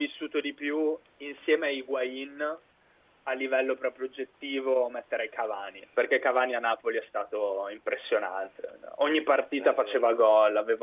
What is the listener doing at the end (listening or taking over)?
listening